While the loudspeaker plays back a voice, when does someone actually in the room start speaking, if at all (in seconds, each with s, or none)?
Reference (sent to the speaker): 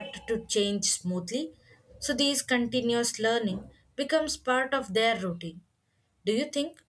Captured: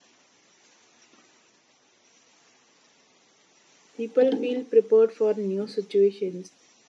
3.9 s